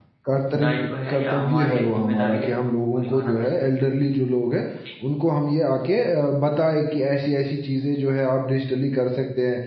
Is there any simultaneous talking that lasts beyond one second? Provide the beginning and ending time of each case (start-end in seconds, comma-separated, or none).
1.1-3.5